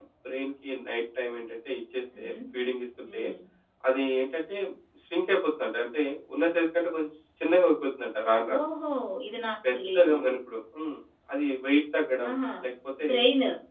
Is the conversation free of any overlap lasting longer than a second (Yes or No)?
Yes